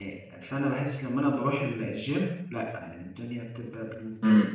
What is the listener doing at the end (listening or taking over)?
taking over